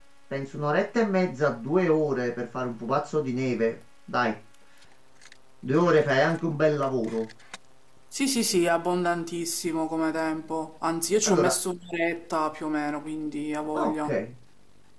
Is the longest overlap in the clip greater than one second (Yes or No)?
No